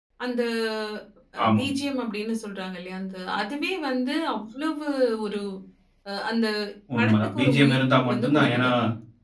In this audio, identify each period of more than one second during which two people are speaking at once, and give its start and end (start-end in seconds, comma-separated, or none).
7.0-8.7